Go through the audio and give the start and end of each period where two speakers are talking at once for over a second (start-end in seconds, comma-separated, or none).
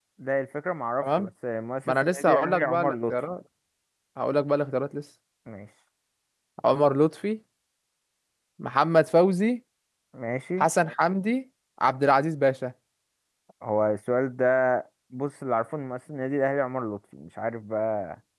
1.9-3.2